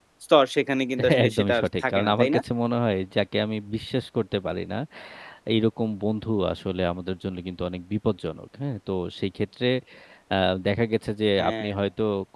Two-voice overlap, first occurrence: 1.1 s

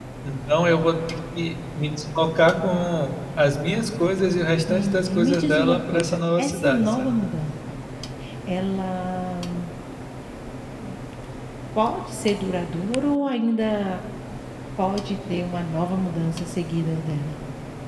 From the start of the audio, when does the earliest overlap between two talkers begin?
4.7 s

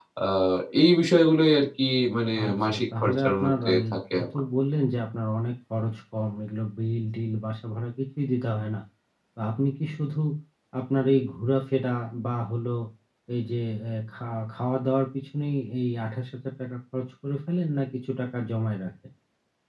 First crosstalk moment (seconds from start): 2.4 s

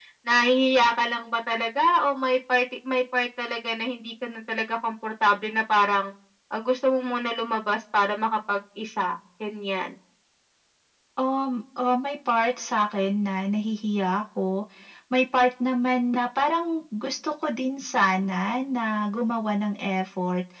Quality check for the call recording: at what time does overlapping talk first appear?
none

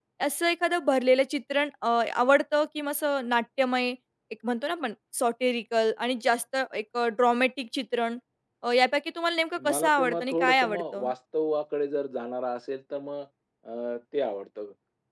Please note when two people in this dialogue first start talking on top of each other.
9.6 s

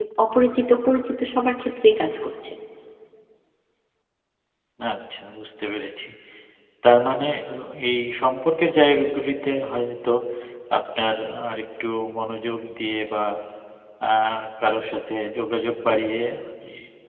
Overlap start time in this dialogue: none

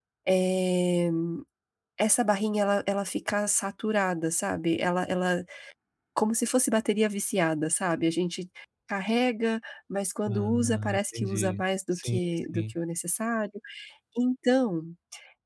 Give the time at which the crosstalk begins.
10.3 s

